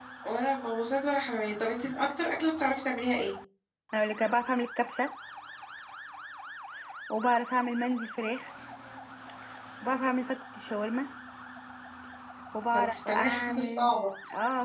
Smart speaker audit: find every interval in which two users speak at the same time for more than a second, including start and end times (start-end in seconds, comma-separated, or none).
12.7-13.9